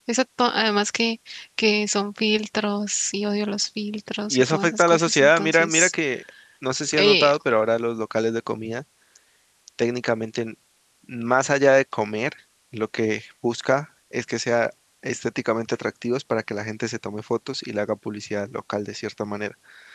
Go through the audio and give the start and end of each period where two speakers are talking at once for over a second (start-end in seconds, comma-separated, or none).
4.3-5.9